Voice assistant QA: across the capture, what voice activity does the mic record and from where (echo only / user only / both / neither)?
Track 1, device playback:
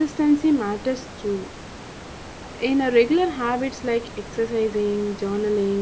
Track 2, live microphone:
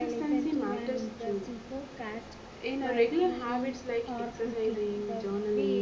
both